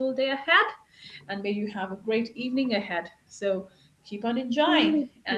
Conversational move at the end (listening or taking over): taking over